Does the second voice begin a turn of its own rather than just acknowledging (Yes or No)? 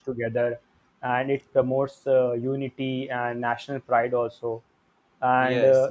No